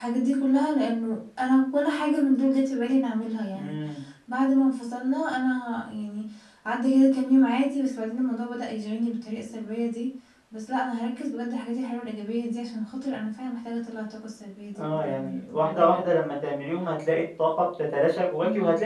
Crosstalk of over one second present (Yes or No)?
Yes